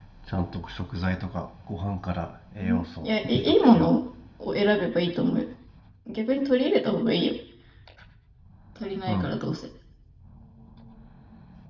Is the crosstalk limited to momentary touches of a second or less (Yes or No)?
No